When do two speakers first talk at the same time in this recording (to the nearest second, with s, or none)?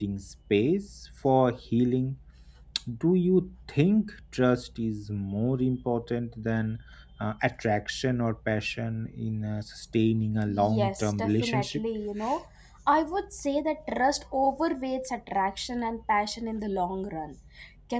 10 s